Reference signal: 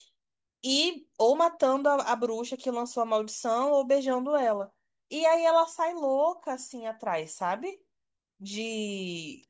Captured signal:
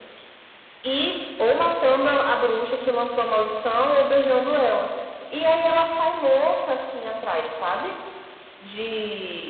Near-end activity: none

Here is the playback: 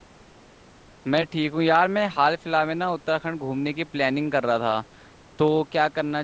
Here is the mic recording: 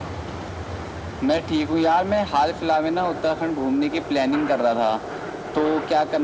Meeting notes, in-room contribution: none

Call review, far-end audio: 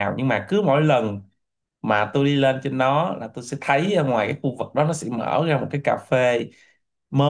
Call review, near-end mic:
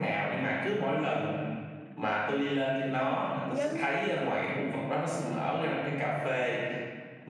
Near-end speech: present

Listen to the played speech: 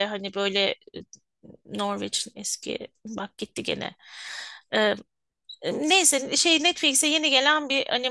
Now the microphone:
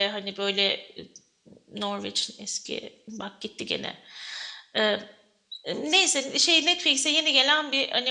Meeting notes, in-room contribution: none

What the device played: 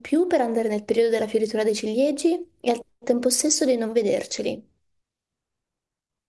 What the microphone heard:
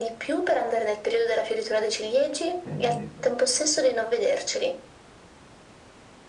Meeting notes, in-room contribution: present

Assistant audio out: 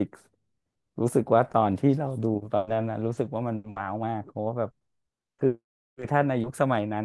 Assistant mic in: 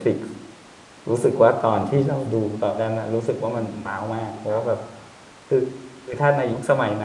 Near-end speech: present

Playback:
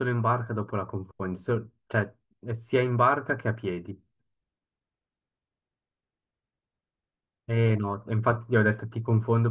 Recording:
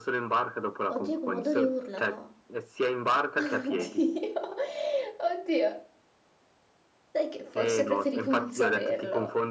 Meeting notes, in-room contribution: present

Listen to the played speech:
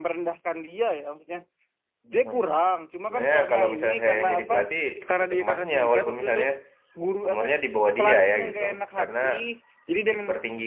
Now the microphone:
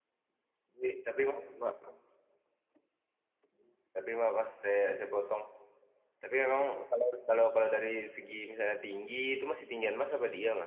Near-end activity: present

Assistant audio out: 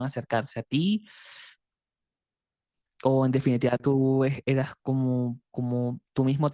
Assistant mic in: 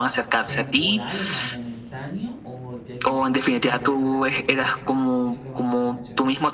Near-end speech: present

